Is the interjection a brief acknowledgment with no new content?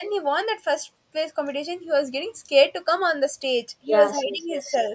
No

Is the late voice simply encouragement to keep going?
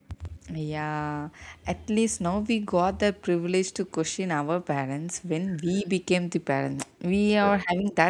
Yes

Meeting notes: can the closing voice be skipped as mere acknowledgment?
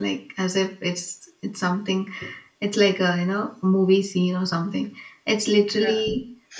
Yes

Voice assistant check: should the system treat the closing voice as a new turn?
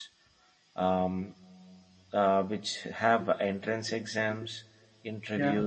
No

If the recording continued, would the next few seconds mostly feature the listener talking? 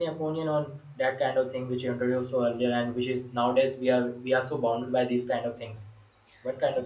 Yes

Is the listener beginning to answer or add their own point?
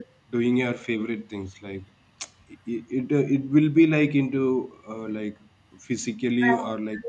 No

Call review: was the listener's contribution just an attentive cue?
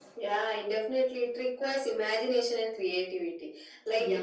Yes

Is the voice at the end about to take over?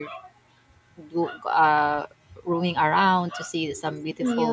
No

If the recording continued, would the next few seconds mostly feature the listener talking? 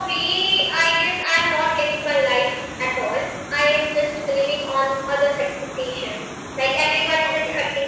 No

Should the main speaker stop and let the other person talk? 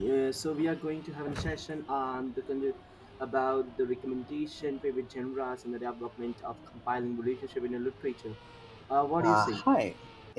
Yes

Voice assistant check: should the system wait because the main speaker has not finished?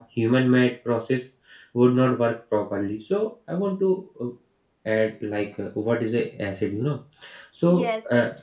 No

